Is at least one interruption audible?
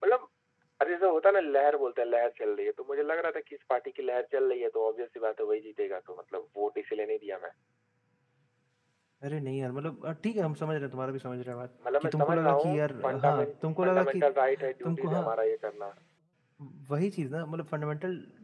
Yes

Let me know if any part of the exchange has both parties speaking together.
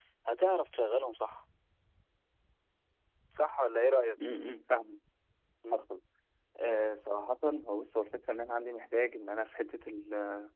No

